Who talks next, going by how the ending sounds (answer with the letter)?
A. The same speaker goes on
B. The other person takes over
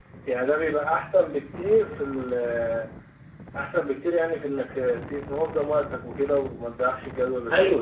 B